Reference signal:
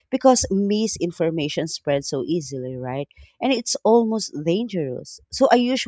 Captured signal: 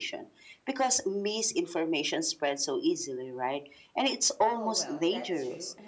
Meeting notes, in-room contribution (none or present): present